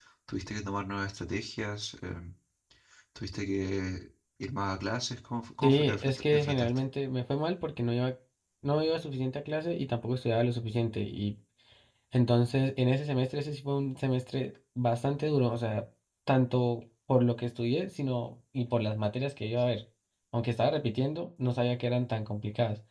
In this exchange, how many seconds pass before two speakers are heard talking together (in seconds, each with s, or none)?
5.6 s